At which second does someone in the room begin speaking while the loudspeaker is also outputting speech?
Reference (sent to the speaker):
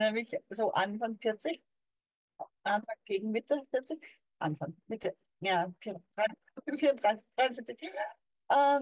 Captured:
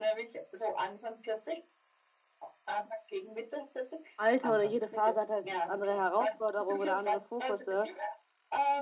4 s

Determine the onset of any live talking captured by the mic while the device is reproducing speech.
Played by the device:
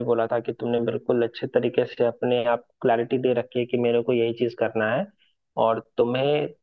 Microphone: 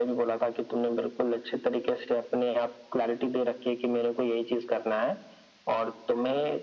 none

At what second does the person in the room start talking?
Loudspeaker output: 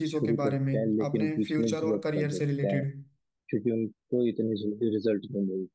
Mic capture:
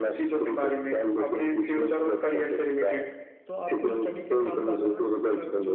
3 s

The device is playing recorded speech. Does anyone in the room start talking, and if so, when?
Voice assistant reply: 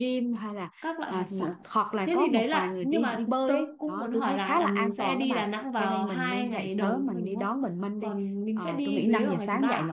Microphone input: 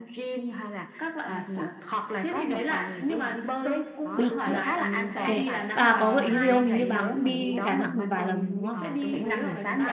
4 s

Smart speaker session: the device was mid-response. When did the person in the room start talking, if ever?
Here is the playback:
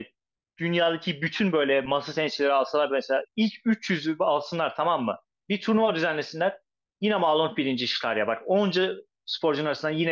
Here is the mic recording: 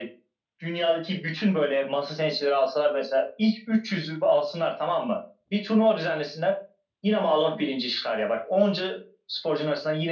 none

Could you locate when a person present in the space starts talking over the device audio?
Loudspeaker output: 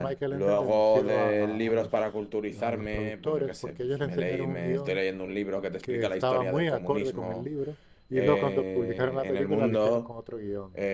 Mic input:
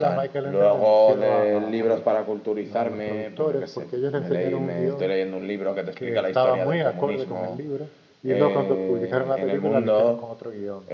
none

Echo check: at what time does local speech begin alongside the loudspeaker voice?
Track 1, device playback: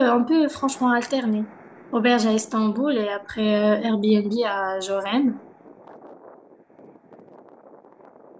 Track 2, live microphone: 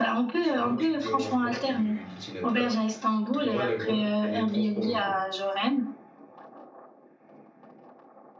0 s

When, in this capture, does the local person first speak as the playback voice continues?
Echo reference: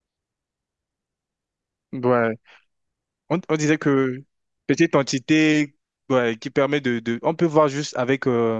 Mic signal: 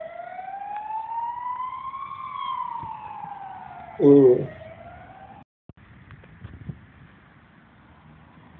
4 s

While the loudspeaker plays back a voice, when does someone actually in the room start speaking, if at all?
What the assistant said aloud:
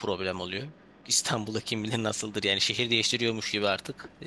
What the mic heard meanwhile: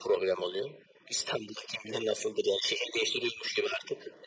none

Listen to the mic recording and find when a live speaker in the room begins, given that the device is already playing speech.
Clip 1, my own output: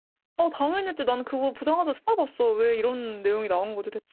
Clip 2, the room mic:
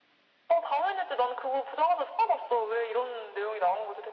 none

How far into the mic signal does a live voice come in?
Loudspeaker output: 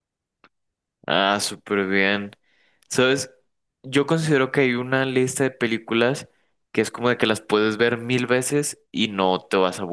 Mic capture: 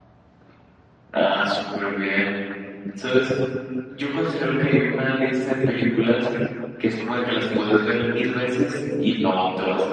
none

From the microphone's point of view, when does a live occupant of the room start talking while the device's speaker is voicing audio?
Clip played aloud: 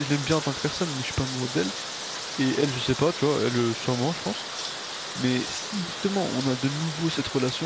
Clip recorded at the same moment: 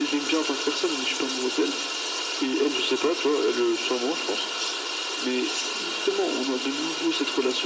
none

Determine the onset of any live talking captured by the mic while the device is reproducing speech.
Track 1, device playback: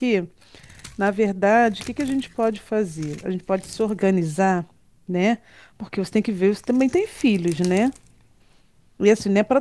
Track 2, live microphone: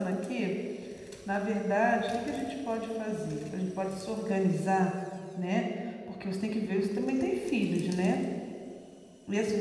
none

